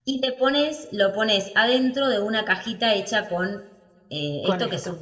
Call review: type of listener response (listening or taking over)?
listening